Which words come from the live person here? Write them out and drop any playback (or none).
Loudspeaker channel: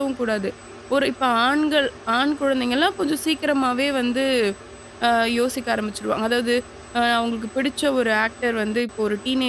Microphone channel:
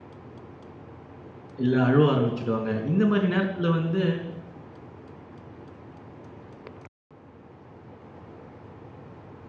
இல்ல அழுவ ஆரம்பிச்சுடுவாங்க. இந்த மாரி நேரத்துல வந்து